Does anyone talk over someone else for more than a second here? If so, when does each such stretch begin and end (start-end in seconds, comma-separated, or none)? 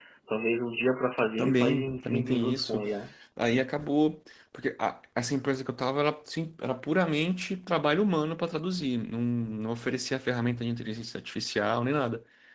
1.4-2.8